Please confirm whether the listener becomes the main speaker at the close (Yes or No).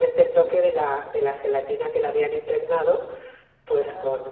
No